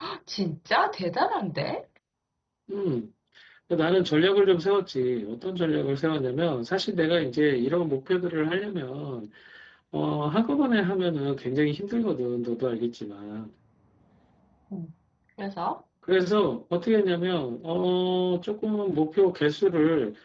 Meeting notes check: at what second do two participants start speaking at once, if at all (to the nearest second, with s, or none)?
none